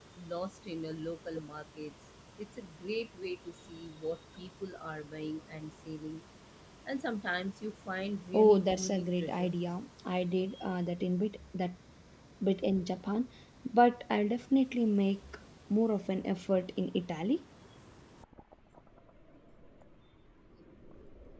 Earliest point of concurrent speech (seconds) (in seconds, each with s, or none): 8.3 s